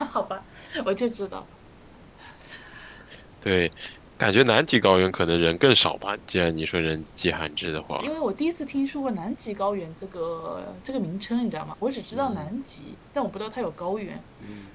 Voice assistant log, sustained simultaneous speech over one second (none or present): none